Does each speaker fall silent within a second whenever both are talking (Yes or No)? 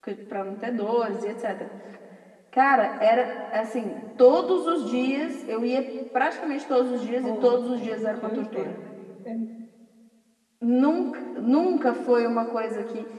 No